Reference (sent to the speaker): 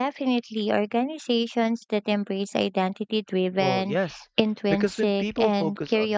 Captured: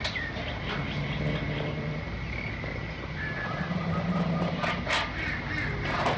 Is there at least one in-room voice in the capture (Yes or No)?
No